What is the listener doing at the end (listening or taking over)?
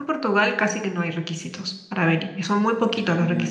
listening